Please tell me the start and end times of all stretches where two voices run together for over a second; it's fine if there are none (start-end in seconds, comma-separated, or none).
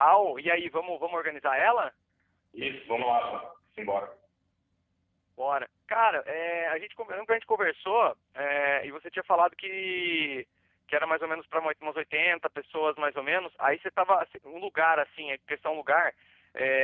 none